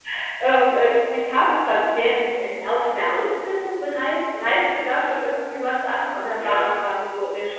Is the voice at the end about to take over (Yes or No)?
No